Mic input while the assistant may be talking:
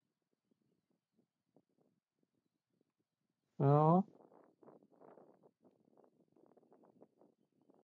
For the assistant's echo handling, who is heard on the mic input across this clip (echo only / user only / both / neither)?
user only